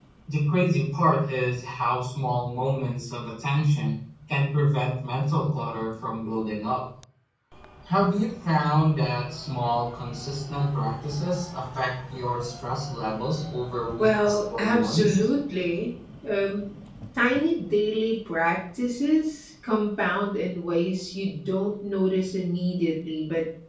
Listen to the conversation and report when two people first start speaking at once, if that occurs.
14 s

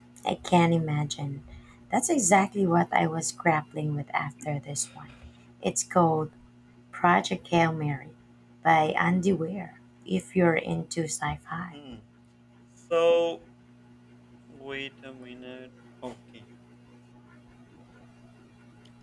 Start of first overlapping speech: none

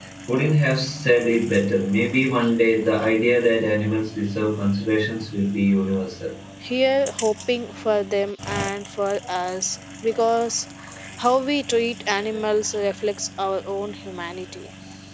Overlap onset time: none

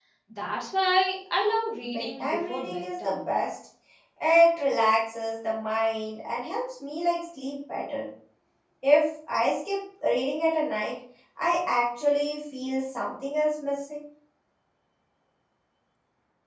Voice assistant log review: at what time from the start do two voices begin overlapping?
2 s

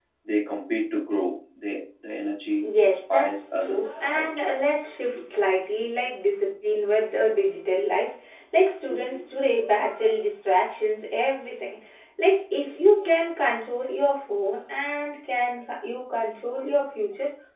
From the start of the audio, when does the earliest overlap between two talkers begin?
3 s

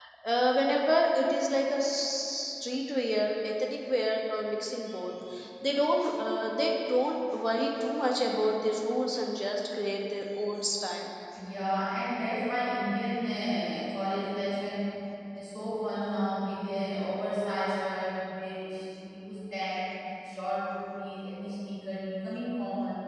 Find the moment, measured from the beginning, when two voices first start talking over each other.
none

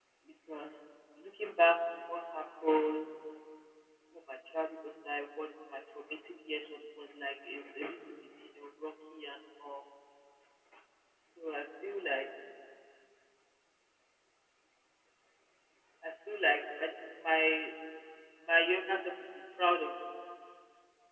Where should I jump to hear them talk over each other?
none

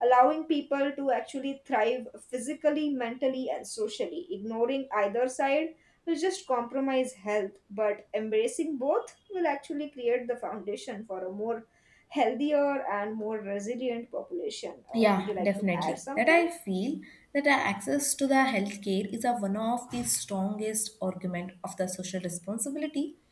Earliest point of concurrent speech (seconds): 15 s

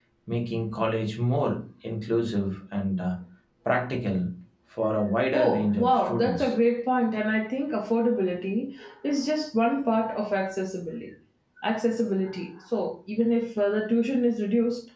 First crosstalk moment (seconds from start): 5 s

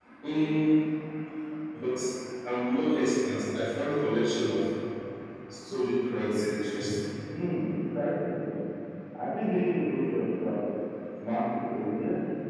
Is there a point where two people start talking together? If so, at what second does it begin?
none

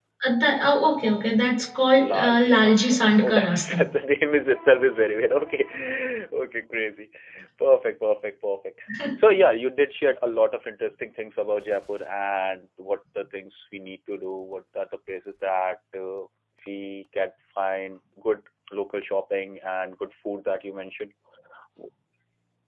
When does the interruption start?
2 s

